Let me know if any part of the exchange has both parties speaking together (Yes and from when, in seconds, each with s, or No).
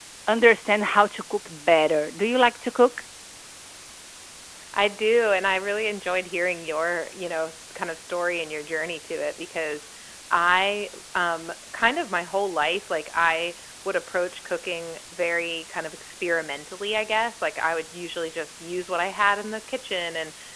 No